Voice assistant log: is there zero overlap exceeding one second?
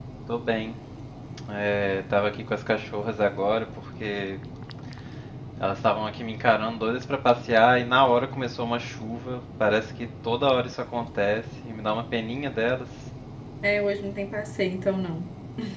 Yes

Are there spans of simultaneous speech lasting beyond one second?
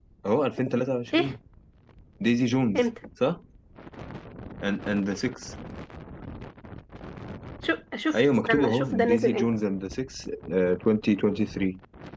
Yes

